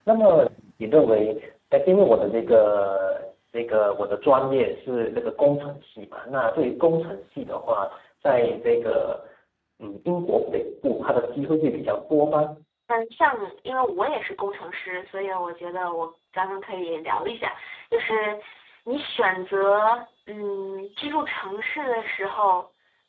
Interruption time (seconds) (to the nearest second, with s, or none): none